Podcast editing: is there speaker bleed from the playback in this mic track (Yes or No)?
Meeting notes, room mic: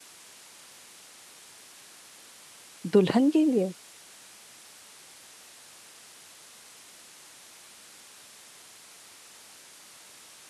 No